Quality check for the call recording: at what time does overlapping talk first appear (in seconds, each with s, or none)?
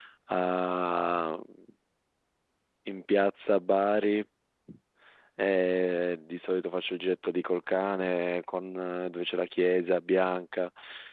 none